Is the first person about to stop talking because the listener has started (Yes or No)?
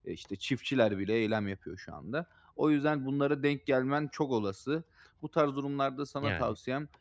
No